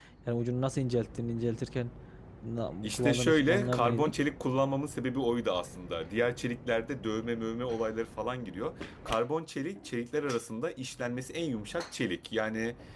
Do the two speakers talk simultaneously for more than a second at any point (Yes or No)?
Yes